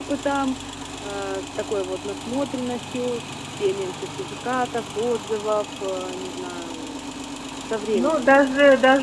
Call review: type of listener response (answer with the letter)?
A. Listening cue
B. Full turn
B